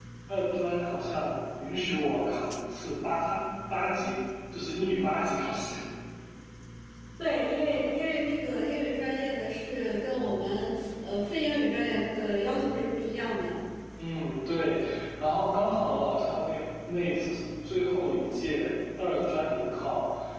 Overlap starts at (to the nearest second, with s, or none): none